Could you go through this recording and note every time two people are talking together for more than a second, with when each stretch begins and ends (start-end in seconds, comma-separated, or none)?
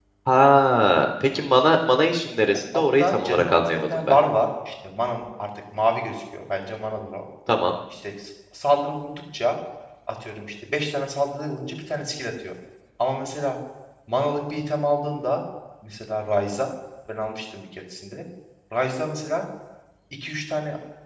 2.8-4.2